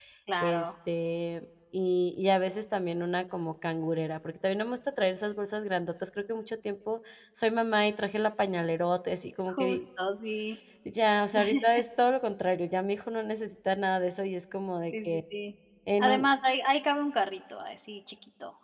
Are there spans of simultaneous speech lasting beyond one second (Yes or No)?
No